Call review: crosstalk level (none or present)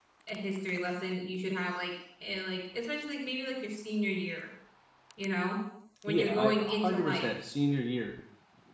present